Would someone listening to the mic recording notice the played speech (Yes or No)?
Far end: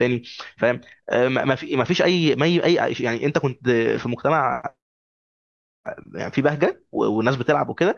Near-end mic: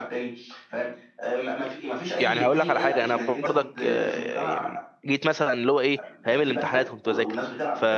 Yes